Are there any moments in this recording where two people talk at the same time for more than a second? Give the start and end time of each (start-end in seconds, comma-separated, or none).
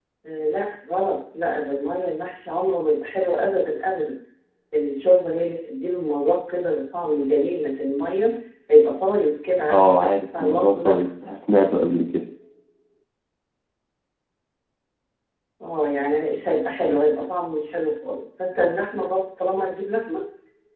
9.7-11.0